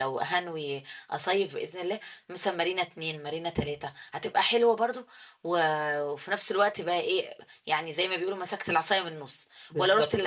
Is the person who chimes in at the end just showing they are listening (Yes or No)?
Yes